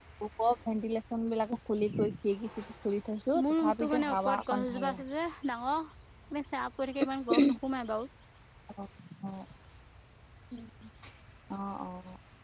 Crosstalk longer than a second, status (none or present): present